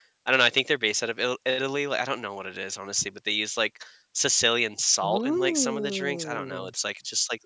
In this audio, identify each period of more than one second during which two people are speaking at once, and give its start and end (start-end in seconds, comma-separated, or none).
5.0-6.7